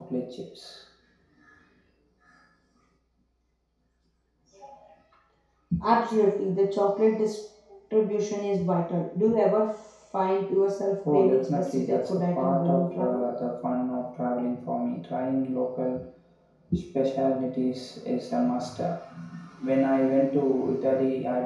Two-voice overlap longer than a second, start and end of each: 11.1-13.3

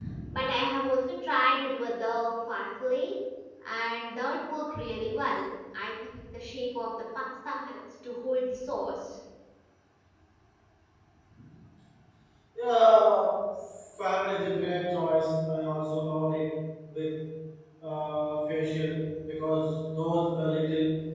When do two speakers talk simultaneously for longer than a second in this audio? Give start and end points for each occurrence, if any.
none

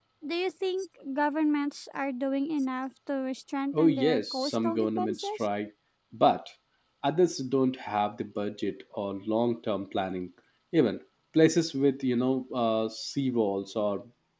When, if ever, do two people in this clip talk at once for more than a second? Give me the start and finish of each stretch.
3.7-5.4

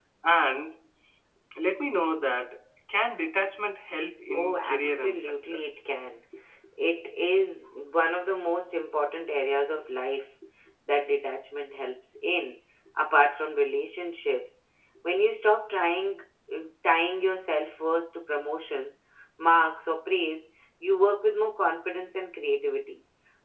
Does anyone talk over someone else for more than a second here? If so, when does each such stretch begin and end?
4.3-5.6

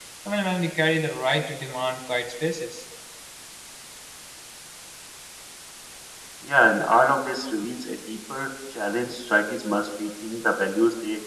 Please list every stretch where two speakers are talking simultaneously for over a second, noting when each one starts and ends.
none

